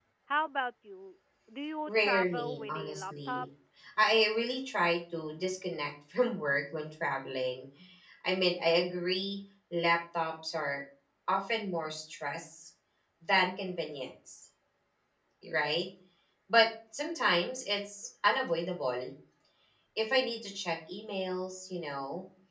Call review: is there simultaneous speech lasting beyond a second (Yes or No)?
Yes